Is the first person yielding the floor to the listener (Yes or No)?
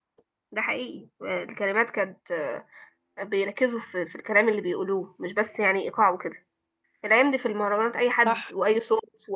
No